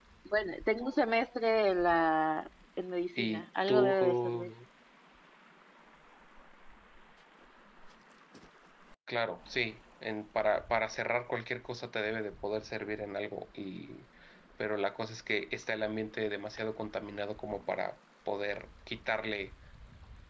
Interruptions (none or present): present